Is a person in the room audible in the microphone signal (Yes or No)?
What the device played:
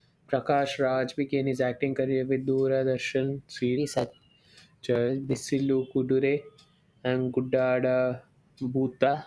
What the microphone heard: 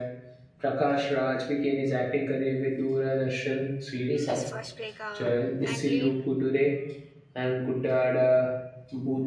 Yes